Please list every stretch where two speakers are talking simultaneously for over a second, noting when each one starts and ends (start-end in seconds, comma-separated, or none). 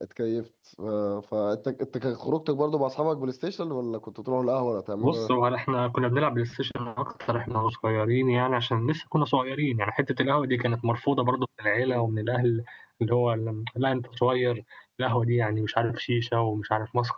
none